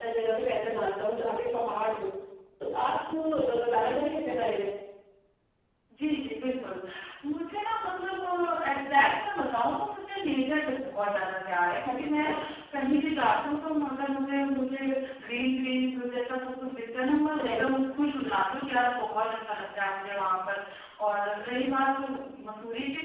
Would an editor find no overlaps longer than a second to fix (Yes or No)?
Yes